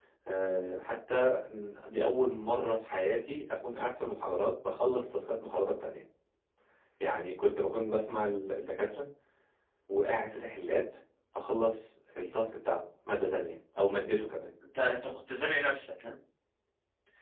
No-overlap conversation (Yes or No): Yes